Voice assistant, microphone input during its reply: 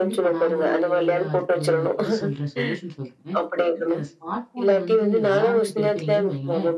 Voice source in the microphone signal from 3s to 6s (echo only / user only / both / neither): both